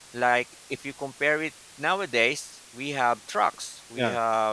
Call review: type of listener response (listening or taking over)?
listening